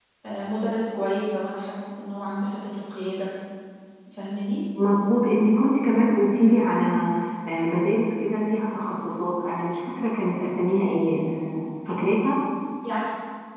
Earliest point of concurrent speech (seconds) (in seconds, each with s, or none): none